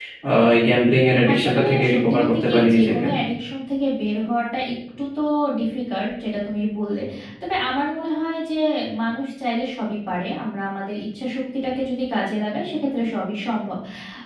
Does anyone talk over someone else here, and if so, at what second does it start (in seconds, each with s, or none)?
1.3 s